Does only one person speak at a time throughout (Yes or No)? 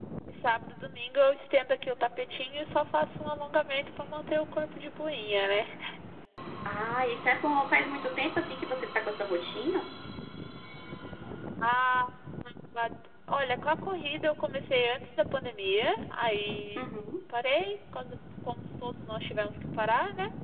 Yes